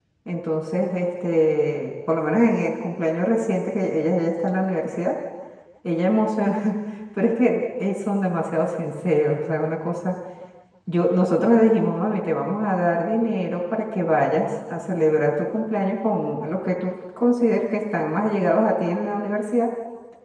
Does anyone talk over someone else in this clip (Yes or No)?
No